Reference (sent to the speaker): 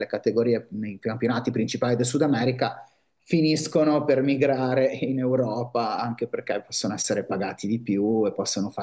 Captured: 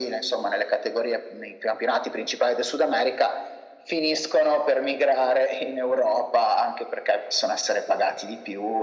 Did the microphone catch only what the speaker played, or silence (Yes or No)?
Yes